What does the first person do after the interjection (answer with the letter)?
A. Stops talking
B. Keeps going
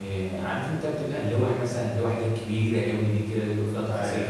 B